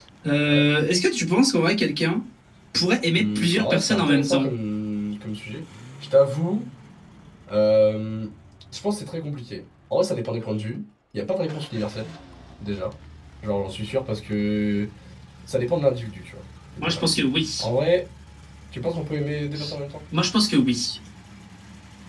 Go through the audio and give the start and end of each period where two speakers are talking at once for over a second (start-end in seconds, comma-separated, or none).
3.2-4.5